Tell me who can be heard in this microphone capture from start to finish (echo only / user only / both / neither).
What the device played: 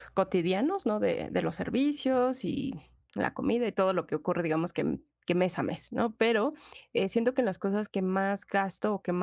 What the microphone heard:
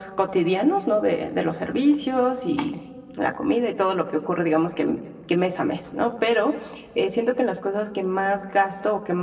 echo only